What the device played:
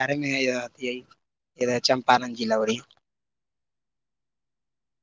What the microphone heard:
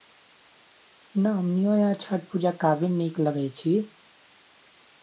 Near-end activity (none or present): present